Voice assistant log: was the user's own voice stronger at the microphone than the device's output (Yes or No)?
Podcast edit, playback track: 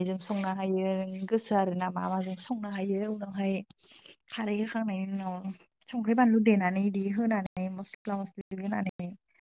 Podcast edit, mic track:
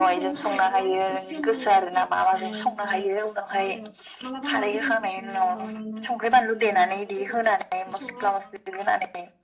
No